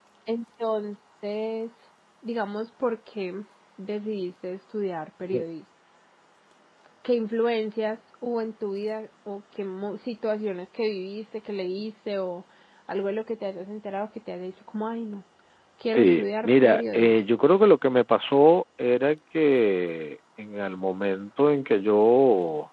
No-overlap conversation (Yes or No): No